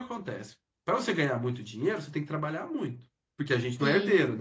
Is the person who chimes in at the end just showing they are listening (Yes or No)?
Yes